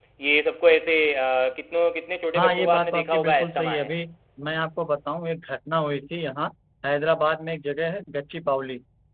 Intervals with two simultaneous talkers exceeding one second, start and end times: 2.4-3.9

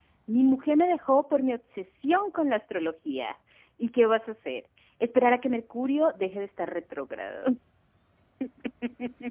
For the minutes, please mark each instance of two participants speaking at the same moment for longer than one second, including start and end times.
none

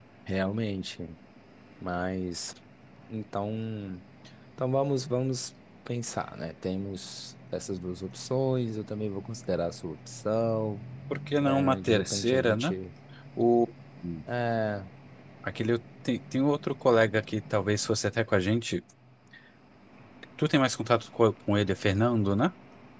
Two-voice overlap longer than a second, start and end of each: 11.4-12.7

